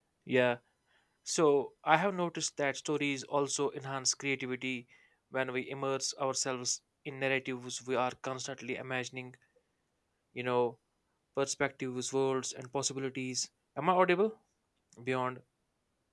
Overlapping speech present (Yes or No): No